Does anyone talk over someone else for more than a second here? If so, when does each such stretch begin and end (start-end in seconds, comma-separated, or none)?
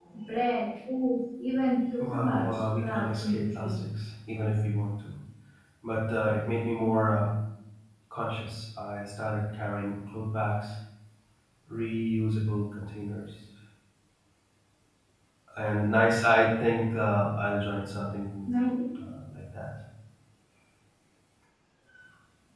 2.0-3.8